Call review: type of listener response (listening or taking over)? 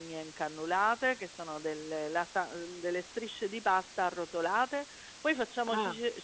listening